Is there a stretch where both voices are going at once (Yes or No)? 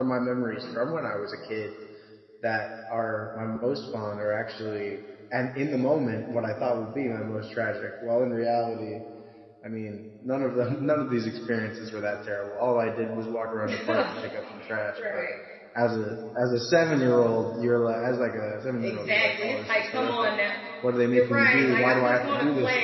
Yes